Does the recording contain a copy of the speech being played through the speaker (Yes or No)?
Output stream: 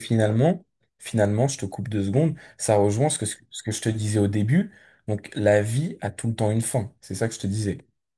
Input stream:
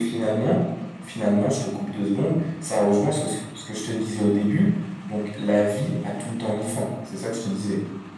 Yes